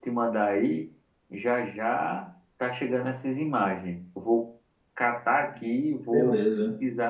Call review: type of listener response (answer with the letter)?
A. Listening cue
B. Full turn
A